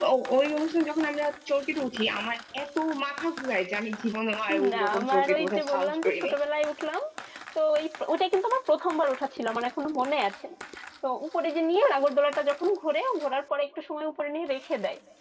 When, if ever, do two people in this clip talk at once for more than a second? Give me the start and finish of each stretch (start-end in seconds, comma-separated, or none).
4.7-6.4